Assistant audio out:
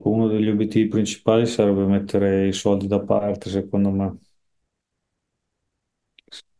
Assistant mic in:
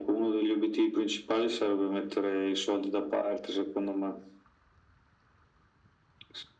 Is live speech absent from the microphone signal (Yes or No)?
Yes